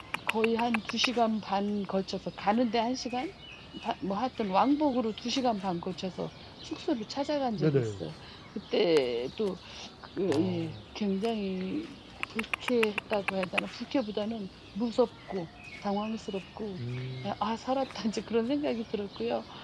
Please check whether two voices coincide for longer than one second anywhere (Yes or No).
No